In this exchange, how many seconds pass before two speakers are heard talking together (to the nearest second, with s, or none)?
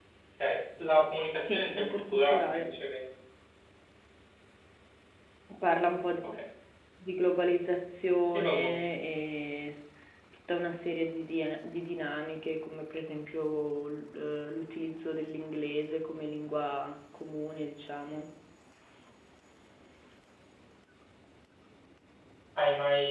1 s